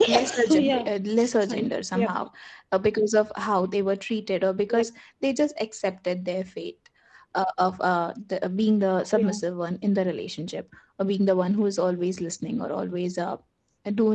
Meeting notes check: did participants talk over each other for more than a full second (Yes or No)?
Yes